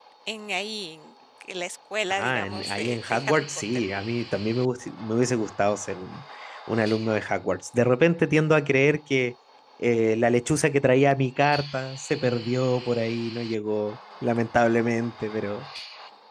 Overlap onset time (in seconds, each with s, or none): 2.1 s